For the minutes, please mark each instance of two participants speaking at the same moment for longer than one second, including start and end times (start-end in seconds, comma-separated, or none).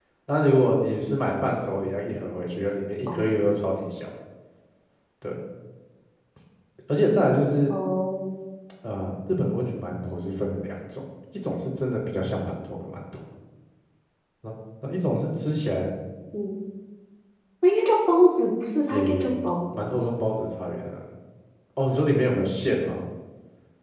none